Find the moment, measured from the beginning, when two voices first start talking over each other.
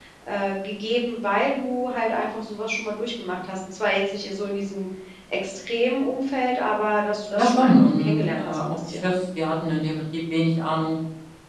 7.4 s

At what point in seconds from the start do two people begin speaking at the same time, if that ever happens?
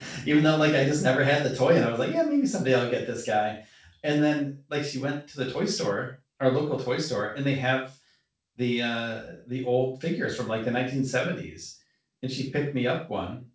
none

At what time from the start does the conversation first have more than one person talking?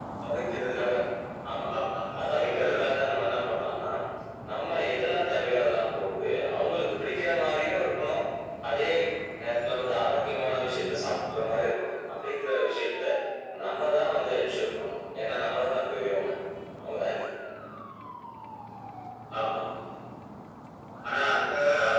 2.2 s

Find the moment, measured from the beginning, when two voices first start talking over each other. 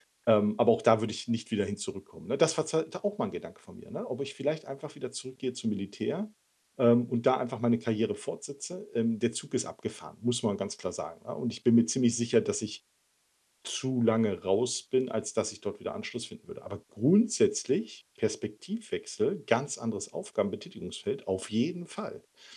none

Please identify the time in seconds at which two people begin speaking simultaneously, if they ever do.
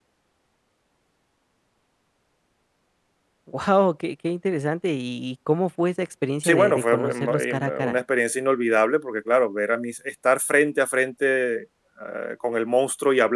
6.4 s

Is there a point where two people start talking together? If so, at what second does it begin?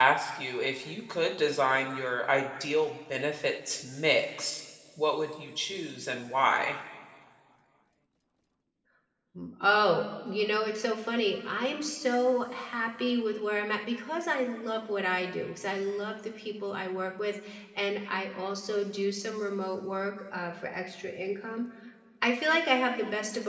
none

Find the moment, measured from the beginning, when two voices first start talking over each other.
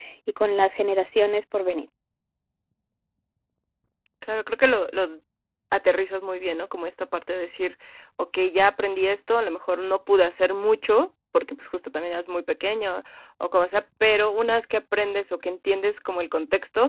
none

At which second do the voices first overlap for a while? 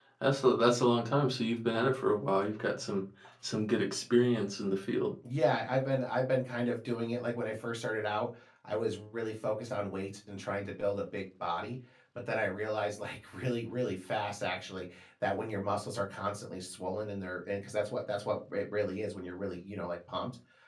none

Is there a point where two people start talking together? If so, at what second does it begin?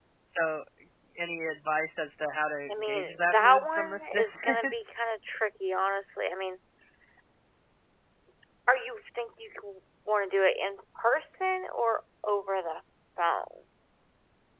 2.7 s

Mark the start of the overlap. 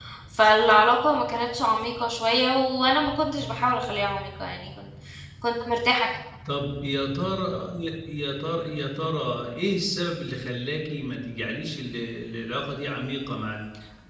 none

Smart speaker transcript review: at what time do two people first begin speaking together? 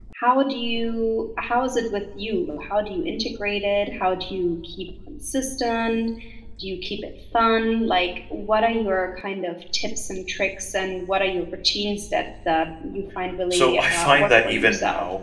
13.5 s

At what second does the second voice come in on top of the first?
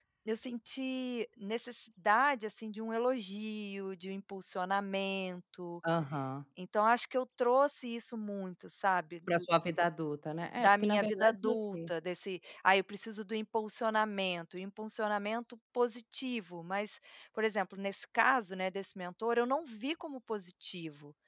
10.6 s

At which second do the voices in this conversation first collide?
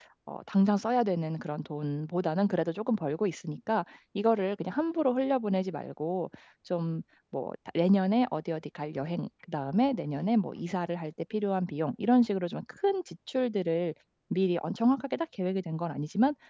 none

